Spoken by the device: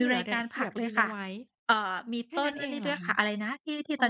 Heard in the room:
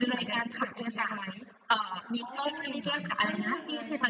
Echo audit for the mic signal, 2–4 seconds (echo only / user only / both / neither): both